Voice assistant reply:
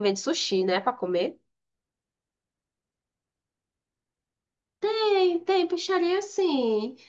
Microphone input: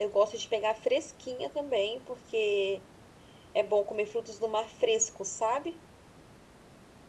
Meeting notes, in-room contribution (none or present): present